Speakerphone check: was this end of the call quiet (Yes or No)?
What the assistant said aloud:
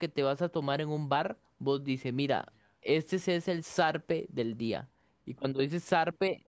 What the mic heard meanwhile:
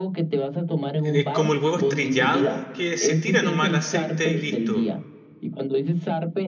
No